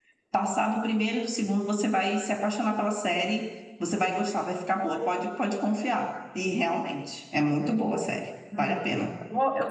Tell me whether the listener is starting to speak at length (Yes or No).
Yes